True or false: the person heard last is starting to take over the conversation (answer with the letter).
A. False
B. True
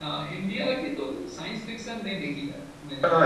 B